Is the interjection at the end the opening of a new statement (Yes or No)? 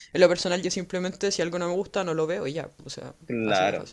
Yes